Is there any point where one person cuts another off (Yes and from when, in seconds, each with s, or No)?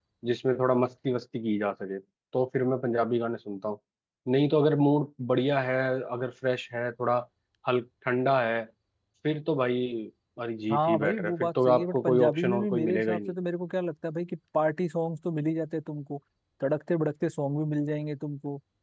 Yes, from 10.7 s